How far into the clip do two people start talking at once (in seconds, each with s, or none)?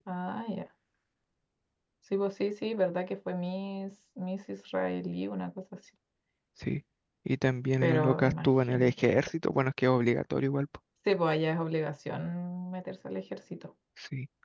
7.8 s